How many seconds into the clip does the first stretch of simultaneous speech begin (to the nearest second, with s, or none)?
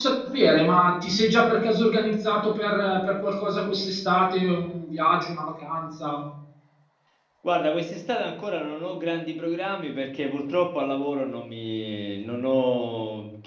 none